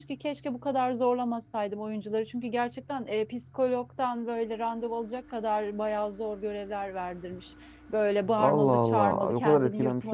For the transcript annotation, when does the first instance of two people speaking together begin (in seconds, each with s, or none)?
8.4 s